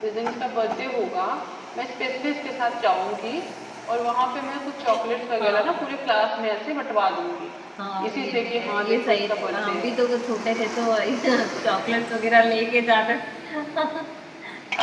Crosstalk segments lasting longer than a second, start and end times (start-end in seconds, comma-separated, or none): 8.1-10.0